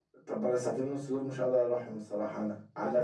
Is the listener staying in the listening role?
No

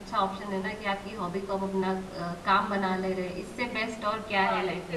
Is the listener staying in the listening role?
No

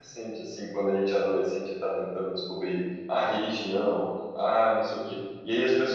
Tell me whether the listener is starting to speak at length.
No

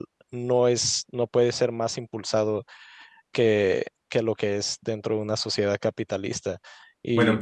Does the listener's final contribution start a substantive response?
Yes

